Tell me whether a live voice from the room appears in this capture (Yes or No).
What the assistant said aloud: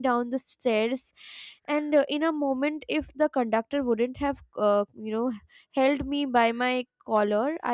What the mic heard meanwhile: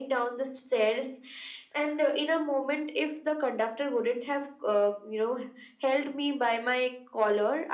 No